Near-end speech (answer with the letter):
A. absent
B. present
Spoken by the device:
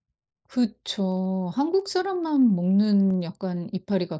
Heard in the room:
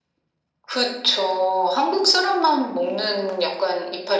A